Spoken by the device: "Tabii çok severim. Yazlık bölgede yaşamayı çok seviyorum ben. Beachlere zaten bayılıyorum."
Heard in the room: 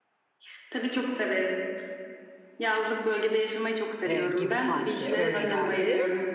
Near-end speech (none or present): present